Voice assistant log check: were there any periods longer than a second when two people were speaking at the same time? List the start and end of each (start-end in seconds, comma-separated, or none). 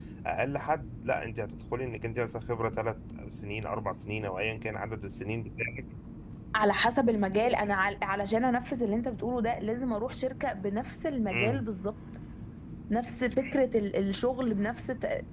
none